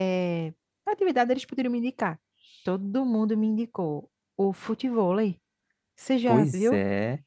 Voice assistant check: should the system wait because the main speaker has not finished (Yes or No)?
No